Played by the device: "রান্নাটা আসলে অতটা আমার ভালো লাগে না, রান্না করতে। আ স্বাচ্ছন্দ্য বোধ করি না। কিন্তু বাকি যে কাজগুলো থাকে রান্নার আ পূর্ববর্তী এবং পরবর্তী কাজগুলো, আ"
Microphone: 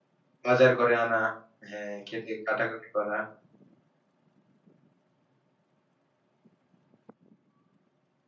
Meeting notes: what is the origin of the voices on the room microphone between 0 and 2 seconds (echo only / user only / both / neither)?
user only